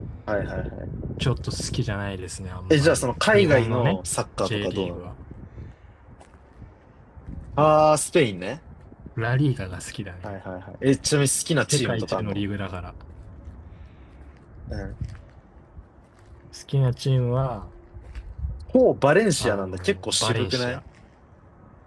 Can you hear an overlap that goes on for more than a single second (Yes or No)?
Yes